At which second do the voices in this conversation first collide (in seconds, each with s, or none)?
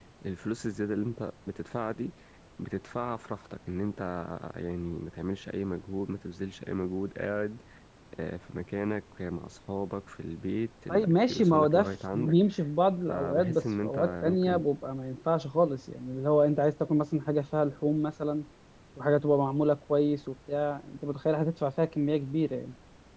10.9 s